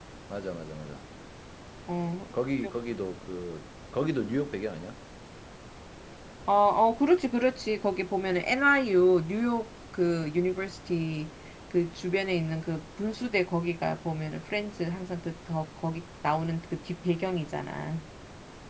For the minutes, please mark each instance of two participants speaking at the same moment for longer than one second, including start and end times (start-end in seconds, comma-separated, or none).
none